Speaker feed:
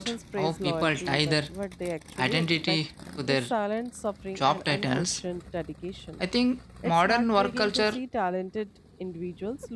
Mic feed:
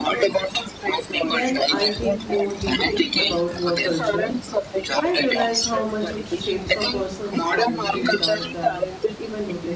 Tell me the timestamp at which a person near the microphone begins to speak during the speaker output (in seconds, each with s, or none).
1.2 s